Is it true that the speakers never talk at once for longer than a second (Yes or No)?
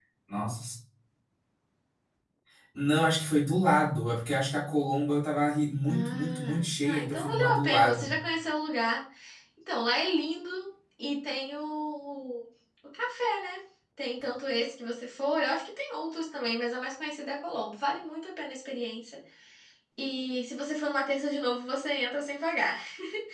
No